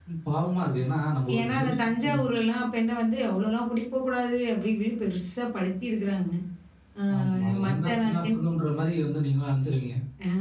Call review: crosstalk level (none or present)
present